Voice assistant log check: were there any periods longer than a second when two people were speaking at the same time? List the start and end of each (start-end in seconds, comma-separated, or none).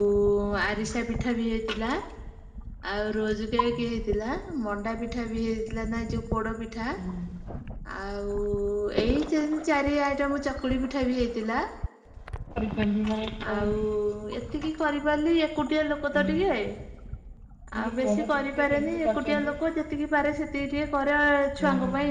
18.0-19.5